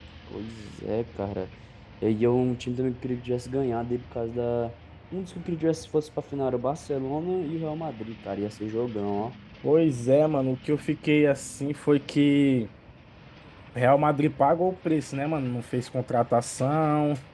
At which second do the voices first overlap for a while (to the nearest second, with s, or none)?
none